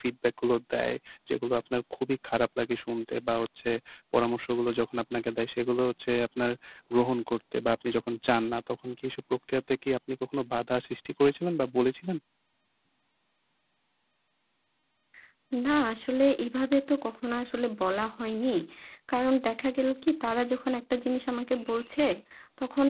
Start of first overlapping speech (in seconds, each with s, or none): none